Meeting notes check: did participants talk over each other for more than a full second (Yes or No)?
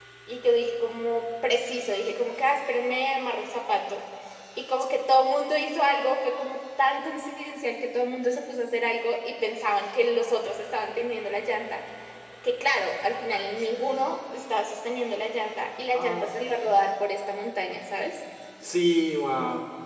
No